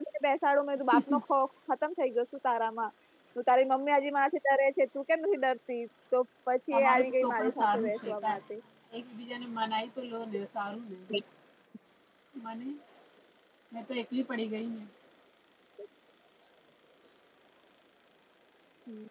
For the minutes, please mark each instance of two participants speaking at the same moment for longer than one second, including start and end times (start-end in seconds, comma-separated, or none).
6.7-8.3